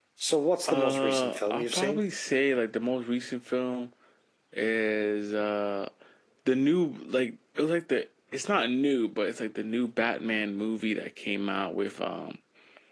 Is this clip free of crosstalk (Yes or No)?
No